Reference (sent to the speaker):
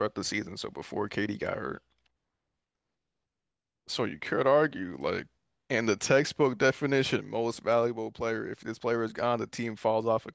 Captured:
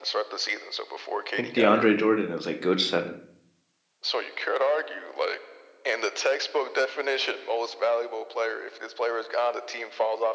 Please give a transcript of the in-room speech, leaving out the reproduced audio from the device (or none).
think DeAndre Jordan is like good center.